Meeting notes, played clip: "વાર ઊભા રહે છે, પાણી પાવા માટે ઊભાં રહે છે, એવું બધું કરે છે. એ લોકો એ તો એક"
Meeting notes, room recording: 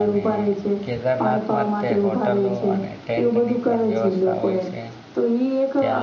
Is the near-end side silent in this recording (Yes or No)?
No